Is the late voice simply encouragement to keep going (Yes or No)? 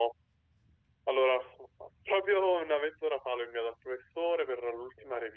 Yes